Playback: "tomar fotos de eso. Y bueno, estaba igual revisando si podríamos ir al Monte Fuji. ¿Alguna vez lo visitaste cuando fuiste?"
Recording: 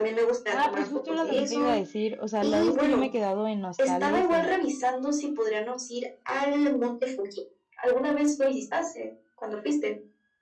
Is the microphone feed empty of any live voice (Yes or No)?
No